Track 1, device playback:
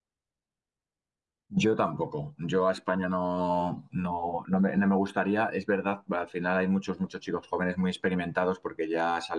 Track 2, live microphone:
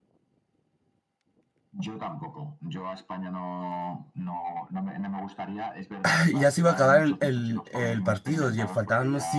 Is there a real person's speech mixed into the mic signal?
Yes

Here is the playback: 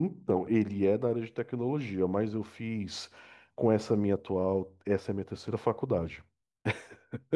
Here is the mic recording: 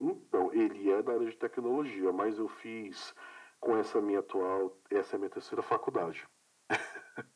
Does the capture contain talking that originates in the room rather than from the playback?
No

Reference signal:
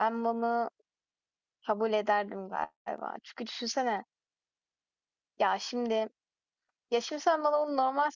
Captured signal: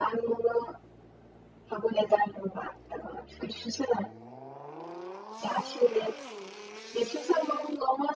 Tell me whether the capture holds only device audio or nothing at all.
Yes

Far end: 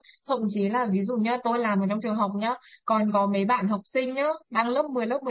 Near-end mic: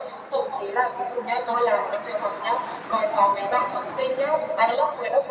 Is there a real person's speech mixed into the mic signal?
No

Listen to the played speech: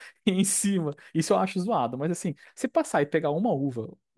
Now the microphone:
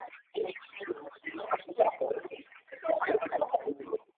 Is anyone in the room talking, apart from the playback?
No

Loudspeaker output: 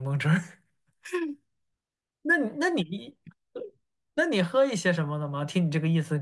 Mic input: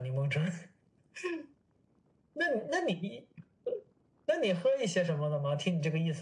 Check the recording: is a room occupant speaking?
No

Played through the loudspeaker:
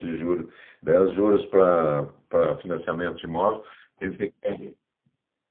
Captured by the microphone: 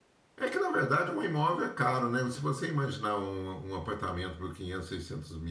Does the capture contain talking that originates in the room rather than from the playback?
Yes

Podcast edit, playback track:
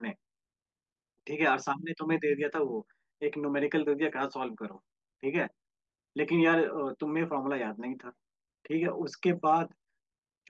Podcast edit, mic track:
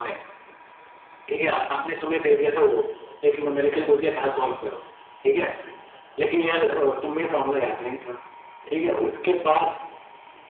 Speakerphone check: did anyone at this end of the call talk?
No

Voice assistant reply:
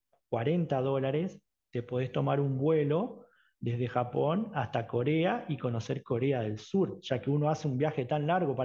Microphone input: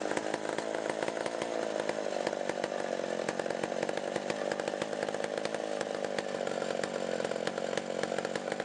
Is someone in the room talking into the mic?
No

